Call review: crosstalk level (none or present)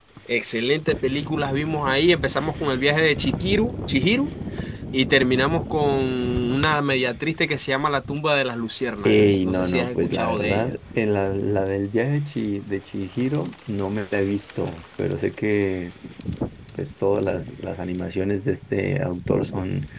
present